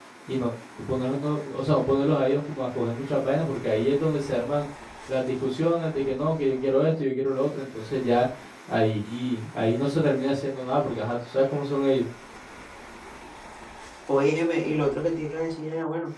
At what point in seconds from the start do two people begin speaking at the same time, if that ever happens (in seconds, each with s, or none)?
none